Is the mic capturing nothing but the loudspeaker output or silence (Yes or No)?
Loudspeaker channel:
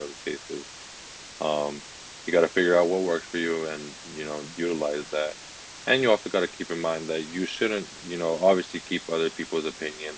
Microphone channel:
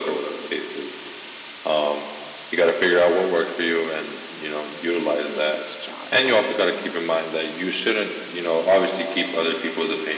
No